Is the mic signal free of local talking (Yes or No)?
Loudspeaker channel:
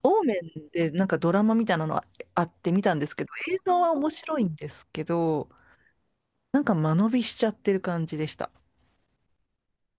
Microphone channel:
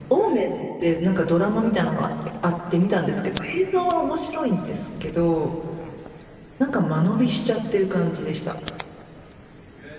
Yes